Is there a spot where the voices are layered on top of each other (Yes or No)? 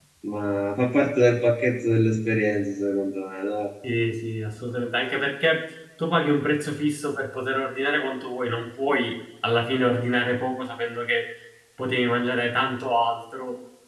No